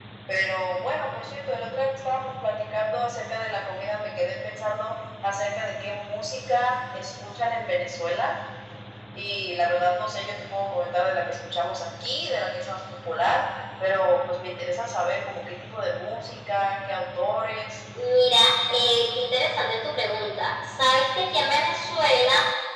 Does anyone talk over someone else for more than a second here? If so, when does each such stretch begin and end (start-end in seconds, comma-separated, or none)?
none